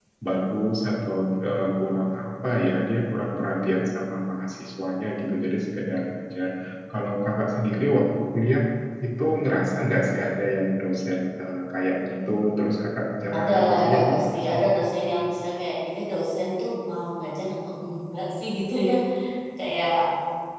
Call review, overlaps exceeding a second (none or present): present